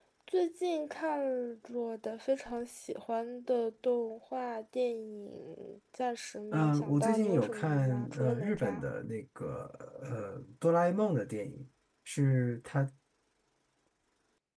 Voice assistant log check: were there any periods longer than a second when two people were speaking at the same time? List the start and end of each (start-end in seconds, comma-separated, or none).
6.5-8.8